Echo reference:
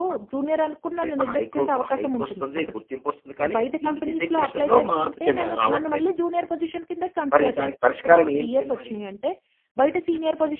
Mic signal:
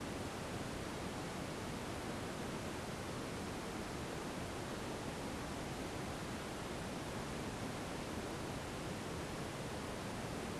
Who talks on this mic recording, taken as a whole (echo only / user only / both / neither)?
neither